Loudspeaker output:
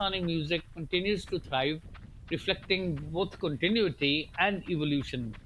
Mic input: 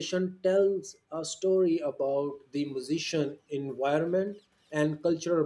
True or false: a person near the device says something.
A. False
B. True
B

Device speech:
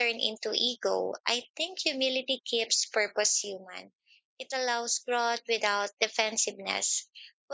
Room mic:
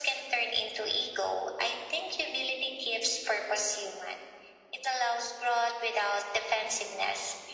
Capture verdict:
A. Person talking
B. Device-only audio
B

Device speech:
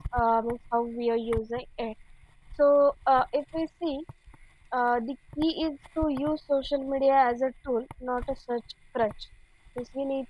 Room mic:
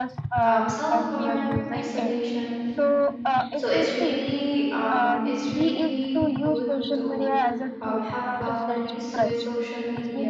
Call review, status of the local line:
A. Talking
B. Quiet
A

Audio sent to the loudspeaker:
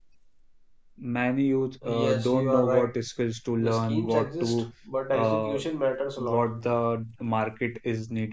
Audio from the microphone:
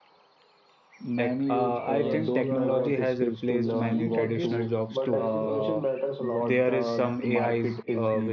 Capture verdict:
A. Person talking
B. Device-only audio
A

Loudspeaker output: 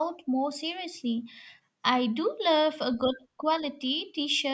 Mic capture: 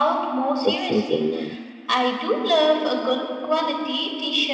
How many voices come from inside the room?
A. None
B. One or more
B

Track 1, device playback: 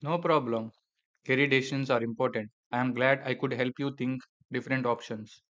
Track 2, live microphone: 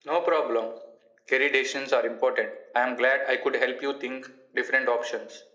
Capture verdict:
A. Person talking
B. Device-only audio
B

